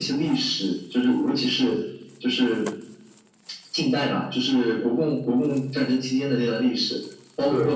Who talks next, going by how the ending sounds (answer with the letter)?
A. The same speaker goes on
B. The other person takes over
A